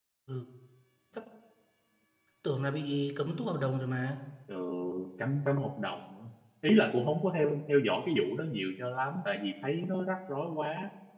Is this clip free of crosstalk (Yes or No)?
Yes